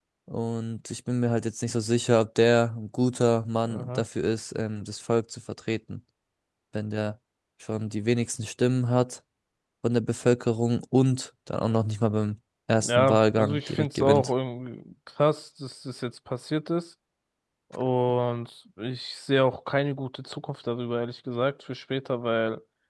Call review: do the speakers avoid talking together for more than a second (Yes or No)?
No